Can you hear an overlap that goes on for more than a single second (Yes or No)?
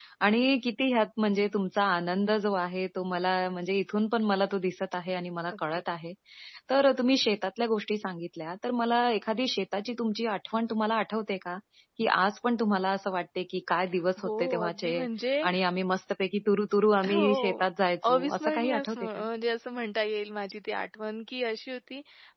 Yes